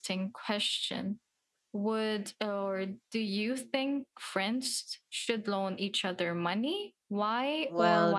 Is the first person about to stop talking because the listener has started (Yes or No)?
Yes